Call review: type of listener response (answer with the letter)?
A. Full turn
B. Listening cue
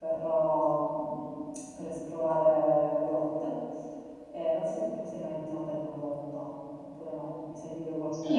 A